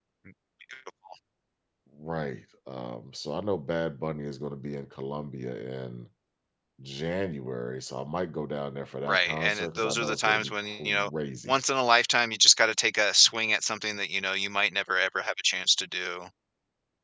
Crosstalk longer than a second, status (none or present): present